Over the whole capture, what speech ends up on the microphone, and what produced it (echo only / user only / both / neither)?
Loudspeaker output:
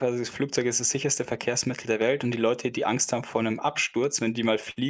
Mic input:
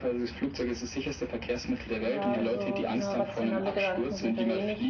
both